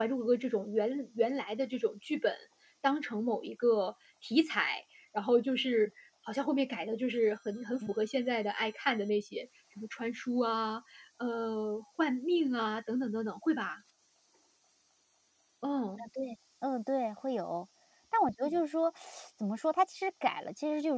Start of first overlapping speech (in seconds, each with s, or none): none